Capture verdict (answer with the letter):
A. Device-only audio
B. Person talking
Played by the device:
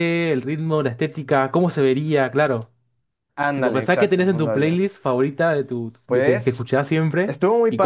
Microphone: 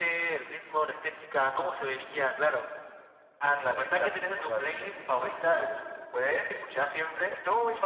A